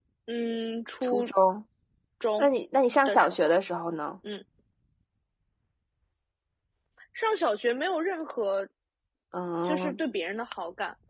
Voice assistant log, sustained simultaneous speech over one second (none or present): none